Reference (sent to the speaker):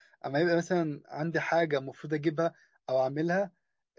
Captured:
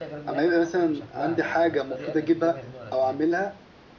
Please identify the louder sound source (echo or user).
echo